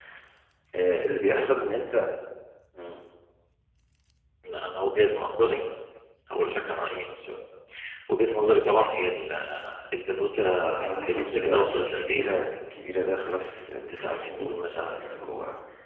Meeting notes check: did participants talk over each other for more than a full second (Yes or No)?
Yes